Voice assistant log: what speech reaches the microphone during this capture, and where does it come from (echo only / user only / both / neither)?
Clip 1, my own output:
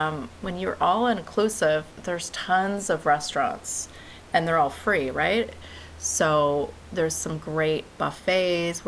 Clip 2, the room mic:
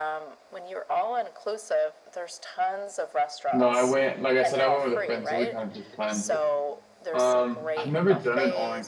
both